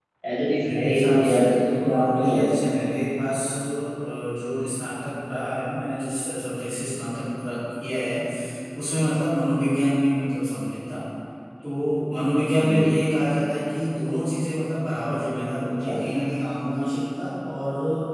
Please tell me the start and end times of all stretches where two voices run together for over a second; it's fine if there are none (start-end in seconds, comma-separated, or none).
0.7-2.5